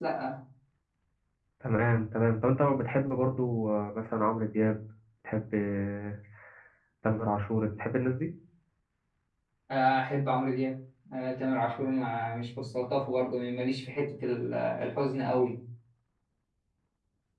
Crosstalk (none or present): none